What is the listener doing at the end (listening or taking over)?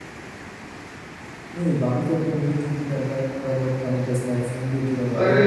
taking over